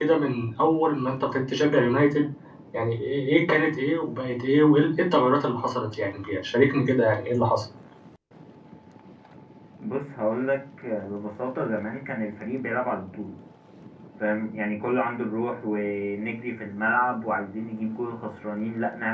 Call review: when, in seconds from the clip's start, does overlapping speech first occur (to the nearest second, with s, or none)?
none